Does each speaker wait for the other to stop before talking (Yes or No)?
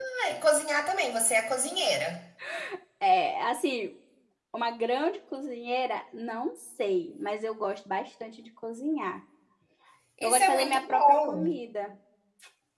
No